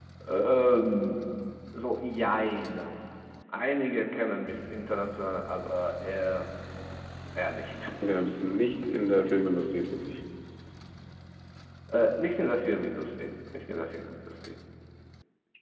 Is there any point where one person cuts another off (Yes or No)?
No